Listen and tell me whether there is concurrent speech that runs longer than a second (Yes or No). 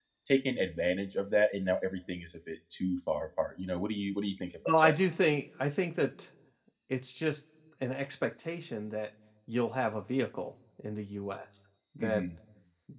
No